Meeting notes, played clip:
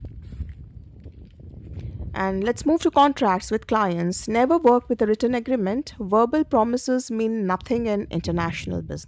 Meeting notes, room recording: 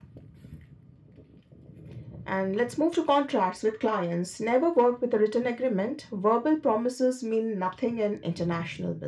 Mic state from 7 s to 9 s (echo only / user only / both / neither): echo only